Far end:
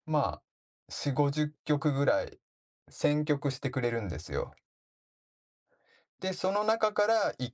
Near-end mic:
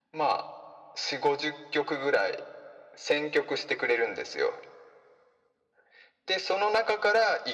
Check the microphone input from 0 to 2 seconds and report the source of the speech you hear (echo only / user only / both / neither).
echo only